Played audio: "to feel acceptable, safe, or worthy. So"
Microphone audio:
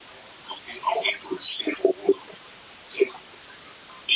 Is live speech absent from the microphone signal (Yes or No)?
Yes